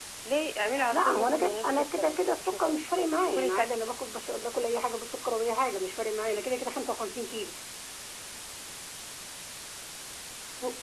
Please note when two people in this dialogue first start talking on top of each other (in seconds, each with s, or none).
0.9 s